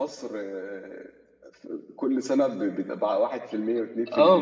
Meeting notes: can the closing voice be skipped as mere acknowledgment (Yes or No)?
No